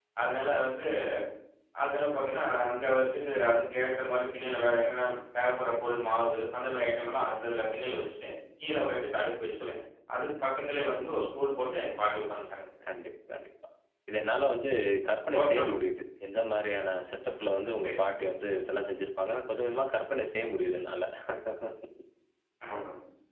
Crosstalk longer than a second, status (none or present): none